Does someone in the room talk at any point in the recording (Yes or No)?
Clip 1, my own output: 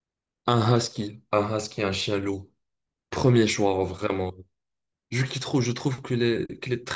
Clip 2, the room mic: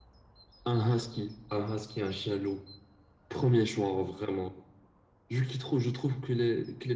No